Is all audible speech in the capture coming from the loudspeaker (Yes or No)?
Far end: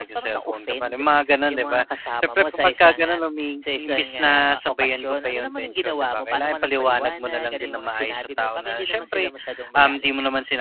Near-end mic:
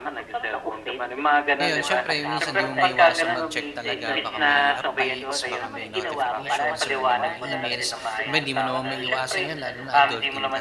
No